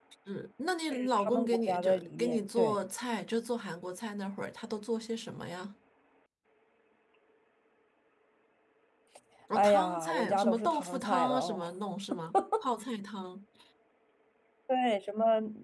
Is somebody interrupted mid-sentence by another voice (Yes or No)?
Yes